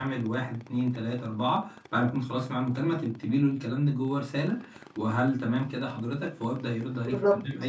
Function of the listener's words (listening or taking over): listening